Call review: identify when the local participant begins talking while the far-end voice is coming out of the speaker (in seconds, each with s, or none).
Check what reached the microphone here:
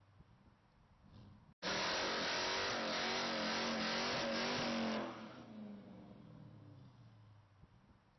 none